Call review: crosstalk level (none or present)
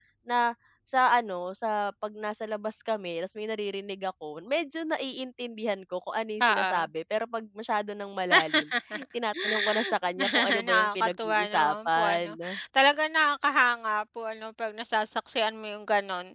present